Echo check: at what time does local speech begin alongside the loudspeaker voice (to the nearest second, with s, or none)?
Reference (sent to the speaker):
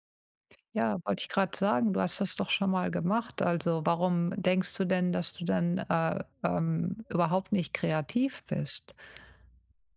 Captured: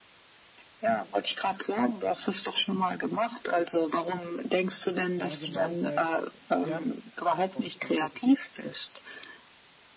5 s